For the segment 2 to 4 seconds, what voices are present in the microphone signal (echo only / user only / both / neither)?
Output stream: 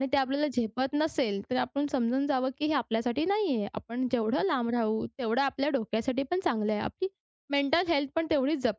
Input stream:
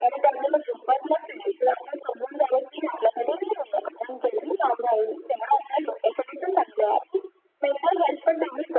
echo only